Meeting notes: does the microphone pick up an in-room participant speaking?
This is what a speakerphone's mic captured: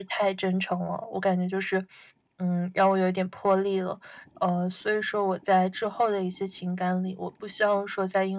No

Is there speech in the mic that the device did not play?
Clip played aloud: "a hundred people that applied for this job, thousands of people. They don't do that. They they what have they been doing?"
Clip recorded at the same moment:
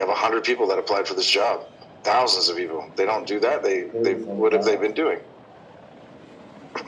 Yes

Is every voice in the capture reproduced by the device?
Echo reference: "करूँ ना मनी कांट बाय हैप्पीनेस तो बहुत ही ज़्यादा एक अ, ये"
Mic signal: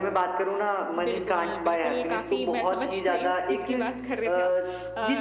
No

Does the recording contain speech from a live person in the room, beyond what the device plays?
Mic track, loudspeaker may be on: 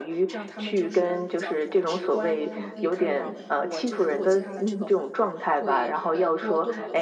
Yes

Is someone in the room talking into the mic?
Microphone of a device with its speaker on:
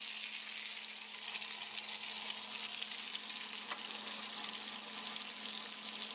No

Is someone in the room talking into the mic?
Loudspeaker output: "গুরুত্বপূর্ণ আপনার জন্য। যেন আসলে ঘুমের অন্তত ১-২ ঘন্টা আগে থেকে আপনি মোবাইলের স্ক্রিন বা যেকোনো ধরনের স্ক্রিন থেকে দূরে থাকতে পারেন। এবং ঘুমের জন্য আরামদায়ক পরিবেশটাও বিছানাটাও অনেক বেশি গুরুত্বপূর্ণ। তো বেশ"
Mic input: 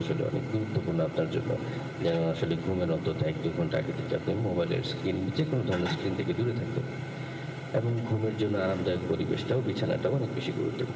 No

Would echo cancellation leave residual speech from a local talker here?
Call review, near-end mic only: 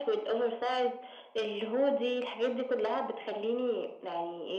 No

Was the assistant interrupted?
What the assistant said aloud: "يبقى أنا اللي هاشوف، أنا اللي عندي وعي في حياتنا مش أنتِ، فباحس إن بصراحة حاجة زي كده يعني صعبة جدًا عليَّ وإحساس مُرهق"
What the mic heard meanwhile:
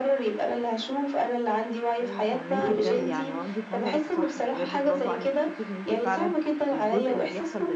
Yes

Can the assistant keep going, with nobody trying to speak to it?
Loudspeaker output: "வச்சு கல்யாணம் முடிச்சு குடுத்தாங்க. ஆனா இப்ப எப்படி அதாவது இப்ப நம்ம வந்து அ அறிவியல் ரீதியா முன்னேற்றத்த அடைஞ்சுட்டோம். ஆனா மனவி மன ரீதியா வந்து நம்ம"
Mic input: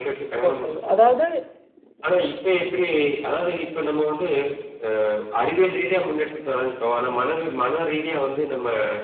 No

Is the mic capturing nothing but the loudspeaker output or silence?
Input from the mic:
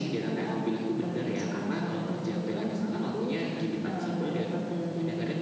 Yes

